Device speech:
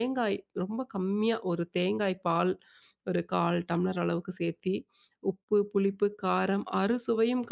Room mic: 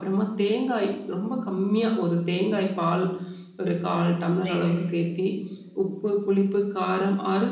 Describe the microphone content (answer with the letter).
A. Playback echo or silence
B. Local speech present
B